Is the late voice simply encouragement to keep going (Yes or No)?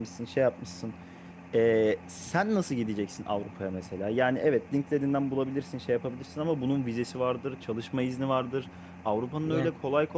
Yes